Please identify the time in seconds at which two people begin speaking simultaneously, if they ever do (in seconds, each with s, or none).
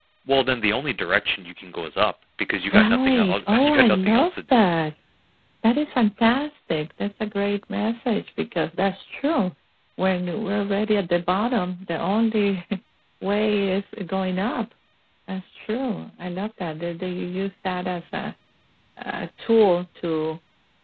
2.7 s